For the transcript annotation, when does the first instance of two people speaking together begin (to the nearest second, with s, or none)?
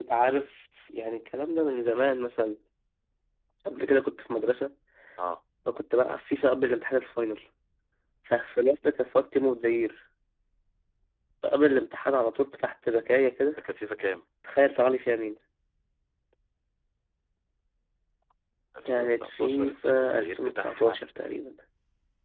19 s